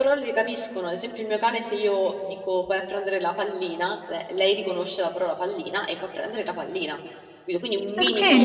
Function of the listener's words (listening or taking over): taking over